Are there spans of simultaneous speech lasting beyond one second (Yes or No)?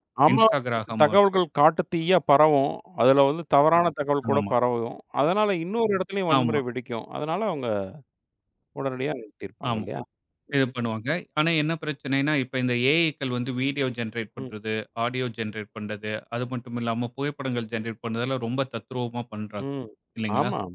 No